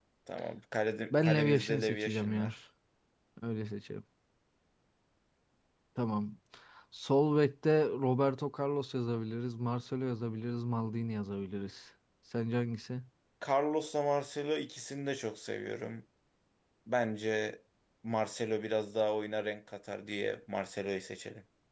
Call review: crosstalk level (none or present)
present